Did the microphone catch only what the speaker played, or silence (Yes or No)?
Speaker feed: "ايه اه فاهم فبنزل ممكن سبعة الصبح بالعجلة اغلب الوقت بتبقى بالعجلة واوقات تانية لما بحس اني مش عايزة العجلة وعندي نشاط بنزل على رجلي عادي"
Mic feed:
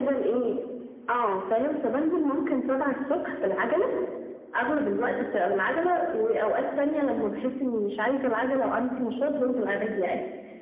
Yes